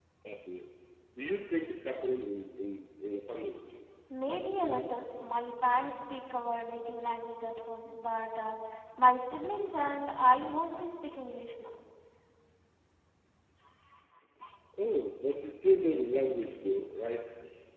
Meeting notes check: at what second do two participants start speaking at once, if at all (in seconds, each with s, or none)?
none